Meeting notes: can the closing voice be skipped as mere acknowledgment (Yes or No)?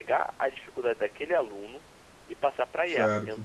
Yes